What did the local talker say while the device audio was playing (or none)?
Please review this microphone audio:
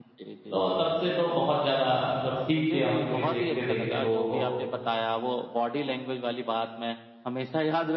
तो तब से तो बहुत ज़्यादा मतलब सीख गया हूँ, ये देखते-देखते लोगों को।